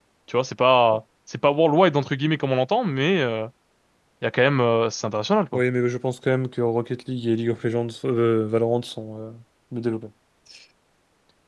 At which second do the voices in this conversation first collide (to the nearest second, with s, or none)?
none